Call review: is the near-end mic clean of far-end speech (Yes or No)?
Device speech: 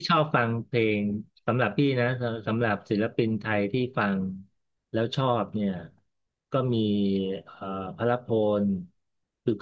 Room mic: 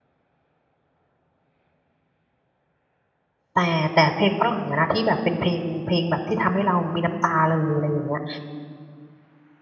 Yes